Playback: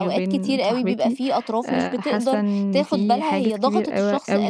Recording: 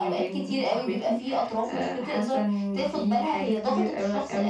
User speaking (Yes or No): No